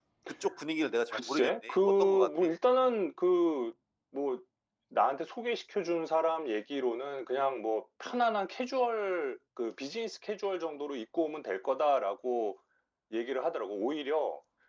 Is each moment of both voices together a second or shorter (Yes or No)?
No